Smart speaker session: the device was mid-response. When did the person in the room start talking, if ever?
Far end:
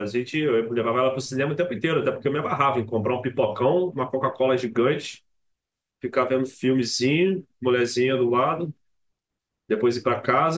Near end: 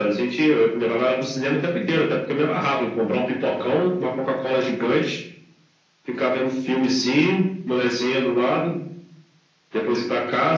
none

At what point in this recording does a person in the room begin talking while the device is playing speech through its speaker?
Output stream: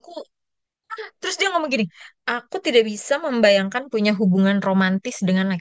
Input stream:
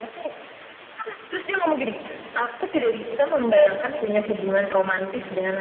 none

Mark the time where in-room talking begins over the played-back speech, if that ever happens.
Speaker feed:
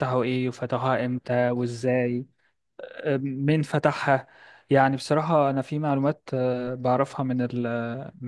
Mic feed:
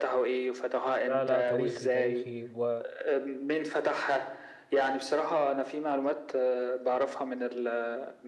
1 s

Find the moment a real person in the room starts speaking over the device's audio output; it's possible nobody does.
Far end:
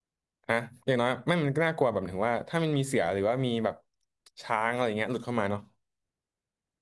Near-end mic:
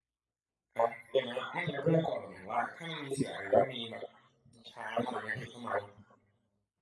none

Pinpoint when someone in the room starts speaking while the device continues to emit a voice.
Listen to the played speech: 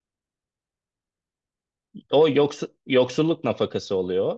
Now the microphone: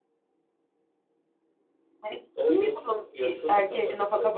2 s

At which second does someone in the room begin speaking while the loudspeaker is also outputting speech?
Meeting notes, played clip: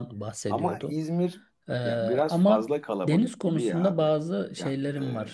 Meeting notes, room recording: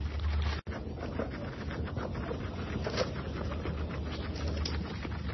none

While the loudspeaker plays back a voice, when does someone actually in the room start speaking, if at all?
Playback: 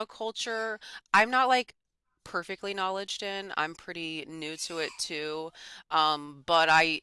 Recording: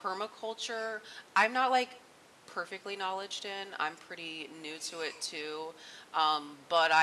none

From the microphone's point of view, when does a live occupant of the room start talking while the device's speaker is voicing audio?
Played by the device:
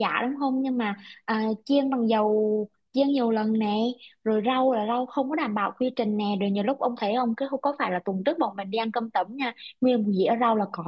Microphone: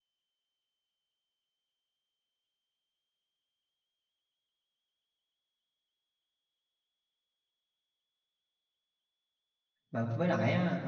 10 s

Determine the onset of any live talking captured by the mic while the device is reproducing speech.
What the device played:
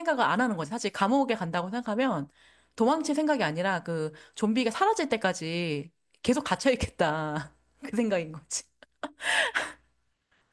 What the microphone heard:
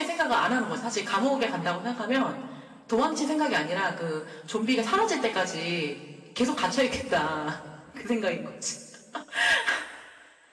none

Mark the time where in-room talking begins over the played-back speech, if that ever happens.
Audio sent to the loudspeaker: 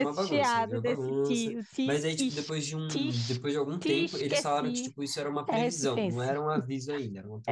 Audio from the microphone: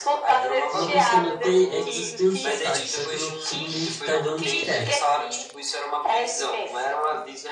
1 s

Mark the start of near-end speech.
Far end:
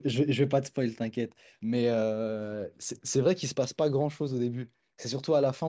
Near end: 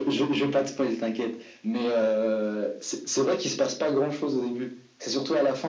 none

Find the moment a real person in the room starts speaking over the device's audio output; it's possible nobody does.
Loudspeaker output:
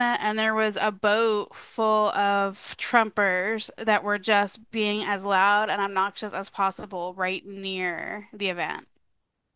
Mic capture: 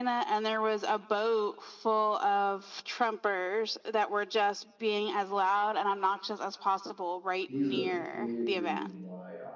7 s

